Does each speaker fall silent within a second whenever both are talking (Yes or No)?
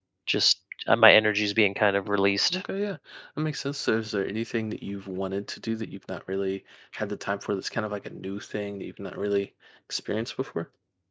Yes